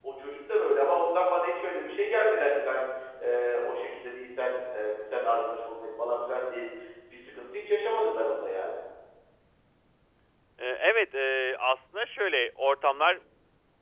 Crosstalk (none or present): none